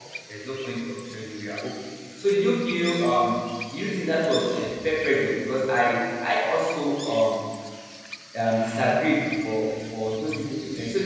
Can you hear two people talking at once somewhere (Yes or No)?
No